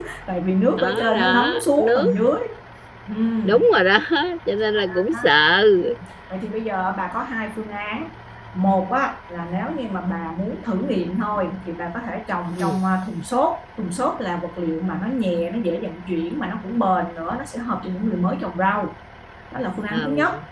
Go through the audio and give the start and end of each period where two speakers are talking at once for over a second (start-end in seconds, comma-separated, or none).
0.8-2.1